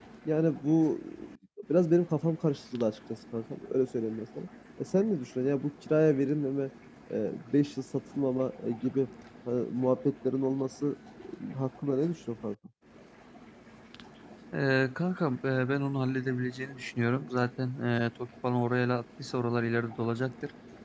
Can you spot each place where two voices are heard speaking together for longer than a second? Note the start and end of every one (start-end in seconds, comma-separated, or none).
none